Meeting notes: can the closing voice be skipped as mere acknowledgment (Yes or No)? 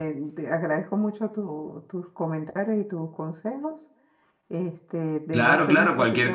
No